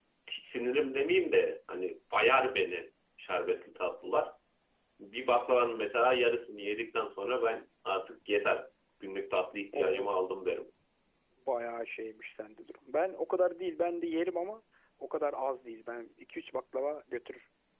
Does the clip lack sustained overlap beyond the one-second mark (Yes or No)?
Yes